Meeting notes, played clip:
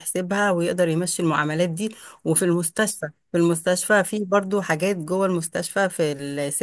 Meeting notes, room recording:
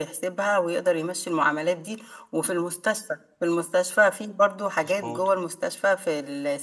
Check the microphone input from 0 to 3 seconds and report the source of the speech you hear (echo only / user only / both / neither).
echo only